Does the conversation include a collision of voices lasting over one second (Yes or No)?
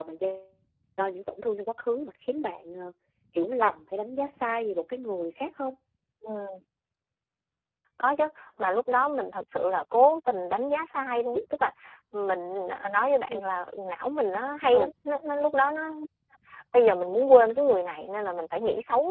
No